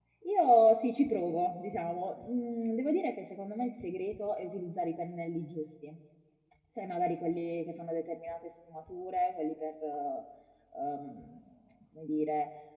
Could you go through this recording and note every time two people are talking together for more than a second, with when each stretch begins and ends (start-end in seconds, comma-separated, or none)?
none